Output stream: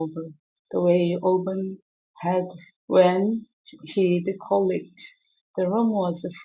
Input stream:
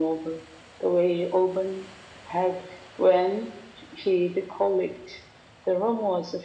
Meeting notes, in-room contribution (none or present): none